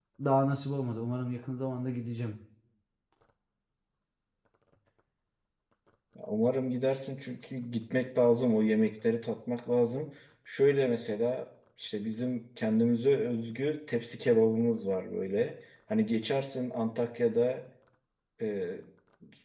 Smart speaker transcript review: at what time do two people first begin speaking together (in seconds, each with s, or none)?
none